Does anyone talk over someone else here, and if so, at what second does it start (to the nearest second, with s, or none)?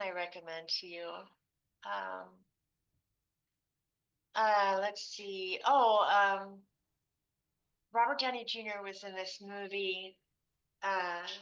none